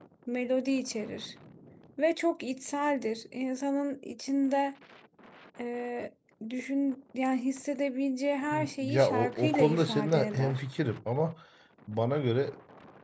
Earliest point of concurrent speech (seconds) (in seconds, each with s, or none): 8.5 s